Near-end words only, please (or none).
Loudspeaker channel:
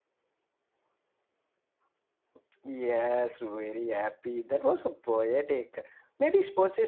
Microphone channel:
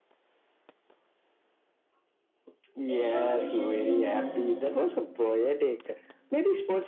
It shows maturity and courage.